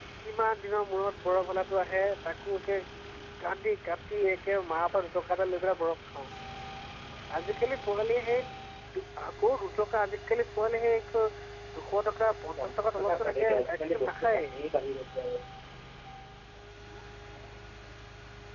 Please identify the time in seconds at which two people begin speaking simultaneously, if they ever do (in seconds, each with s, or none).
12.6 s